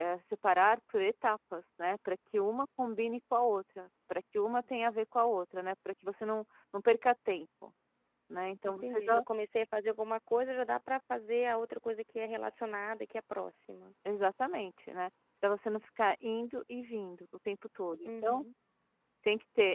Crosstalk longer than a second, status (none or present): none